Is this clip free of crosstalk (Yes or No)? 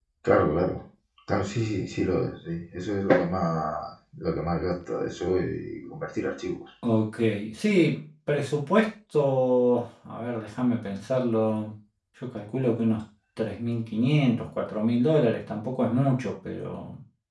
Yes